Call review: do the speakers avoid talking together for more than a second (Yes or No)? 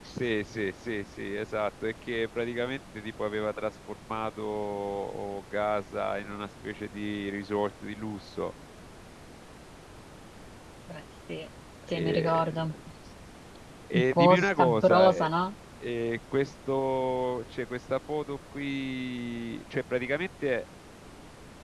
No